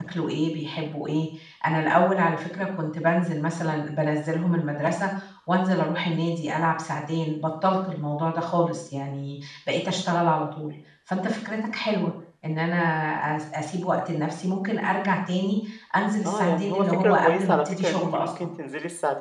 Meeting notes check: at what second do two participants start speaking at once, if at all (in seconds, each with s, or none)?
16.2 s